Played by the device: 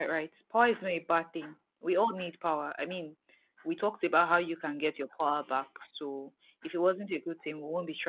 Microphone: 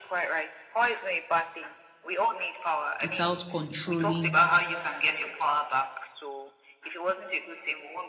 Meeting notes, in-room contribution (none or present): present